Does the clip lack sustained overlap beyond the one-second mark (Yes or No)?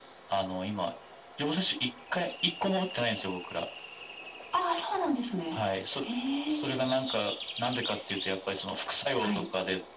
Yes